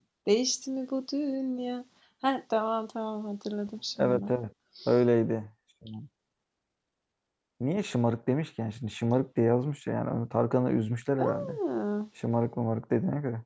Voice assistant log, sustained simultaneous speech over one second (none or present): none